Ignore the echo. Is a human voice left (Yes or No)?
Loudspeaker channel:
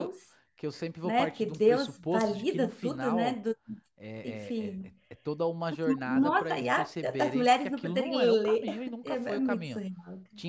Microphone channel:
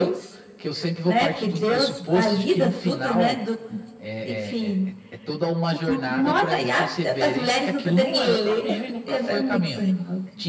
No